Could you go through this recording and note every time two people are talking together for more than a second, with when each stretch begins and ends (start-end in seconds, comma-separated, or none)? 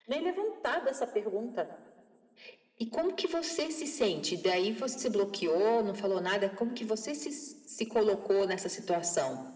none